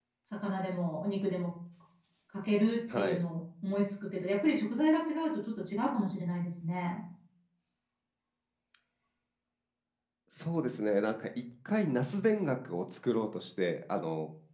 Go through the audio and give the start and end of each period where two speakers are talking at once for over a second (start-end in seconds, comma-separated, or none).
none